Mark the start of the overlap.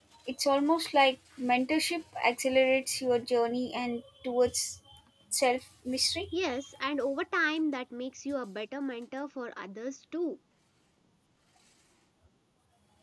none

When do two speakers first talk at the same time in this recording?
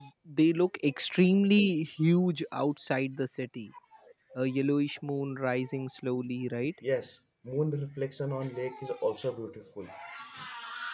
none

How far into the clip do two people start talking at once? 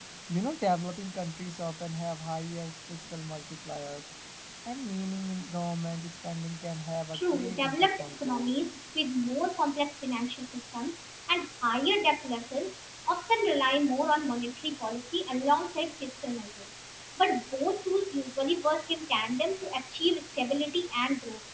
7.1 s

